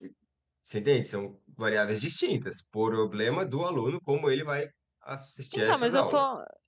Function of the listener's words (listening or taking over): taking over